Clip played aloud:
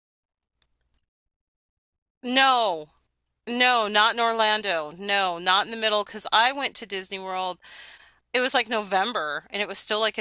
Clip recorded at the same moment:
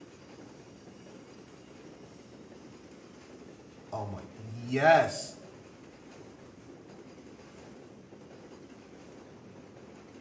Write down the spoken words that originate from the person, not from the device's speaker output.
oh my yes

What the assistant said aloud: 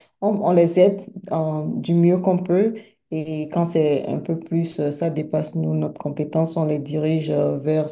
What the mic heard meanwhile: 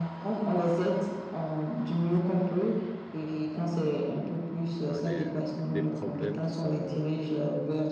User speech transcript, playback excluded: ben, des, des problèmes qui sont euh,

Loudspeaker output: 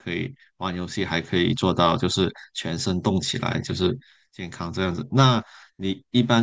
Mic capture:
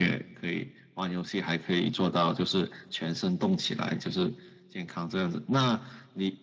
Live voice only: none

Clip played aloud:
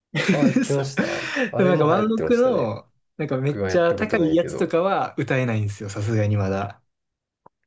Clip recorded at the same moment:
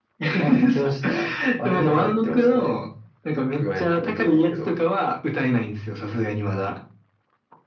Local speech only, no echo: none

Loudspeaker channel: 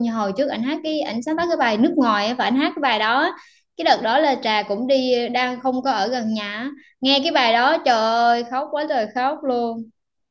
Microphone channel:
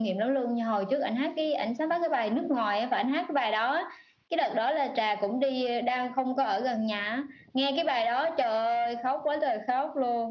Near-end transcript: none

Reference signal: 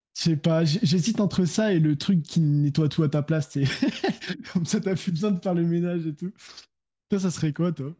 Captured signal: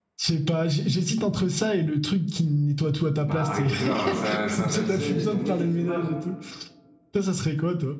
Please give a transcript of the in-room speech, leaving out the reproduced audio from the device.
Bah Harry Potter, euh, c'est un, c'est un magicien, il est tombé, il s'est fait mal.

